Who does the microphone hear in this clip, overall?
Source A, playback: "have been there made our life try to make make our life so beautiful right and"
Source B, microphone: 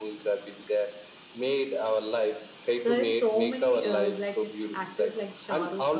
both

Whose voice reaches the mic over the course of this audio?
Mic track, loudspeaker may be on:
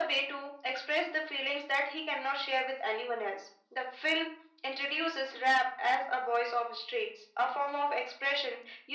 echo only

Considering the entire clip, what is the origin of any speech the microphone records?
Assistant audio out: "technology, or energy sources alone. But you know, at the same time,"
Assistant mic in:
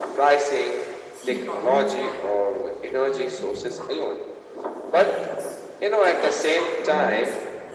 both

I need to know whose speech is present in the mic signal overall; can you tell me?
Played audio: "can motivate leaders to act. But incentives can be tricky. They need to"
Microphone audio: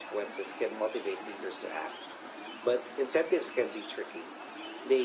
echo only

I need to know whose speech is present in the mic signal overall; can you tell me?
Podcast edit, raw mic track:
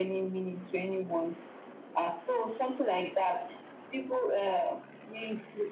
echo only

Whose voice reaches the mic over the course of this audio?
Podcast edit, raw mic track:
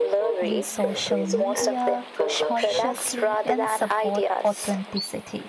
both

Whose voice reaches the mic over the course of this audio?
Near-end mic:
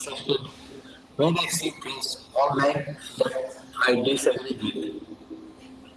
echo only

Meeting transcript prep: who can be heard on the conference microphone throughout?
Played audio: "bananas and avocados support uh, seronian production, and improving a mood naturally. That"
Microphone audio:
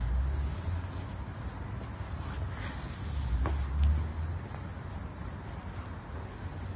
neither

